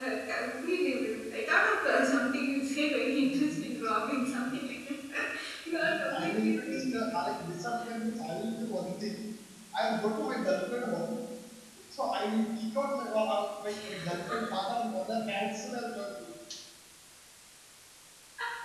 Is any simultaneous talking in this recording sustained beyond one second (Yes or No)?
Yes